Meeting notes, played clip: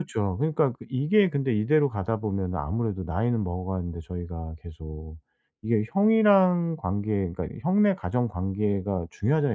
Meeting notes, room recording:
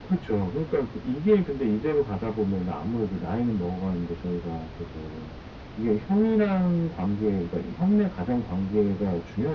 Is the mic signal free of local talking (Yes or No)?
Yes